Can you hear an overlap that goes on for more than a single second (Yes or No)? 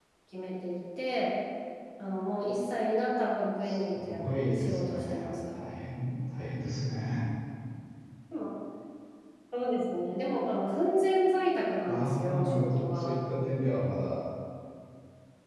Yes